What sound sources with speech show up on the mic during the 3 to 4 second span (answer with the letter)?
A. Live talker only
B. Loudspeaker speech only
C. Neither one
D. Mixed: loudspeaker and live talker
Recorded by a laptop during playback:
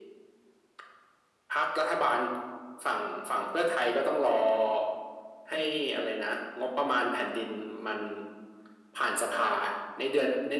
B